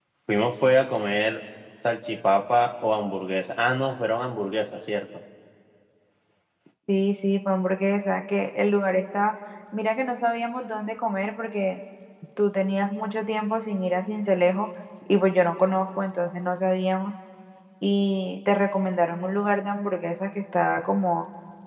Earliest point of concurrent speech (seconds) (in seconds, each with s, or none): none